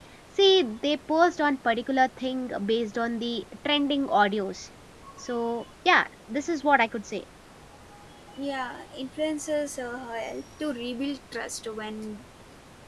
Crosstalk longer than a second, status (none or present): none